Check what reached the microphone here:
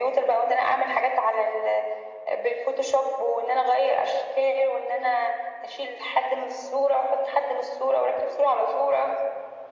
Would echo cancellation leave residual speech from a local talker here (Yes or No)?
No